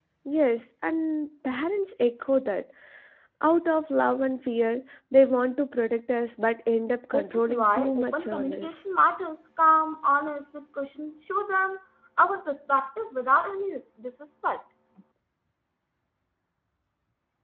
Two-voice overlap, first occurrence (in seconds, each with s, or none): 7.1 s